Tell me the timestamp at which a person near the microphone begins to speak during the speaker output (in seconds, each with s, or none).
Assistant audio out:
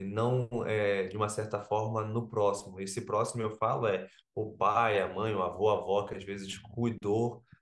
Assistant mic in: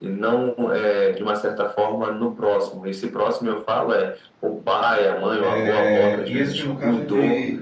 5.4 s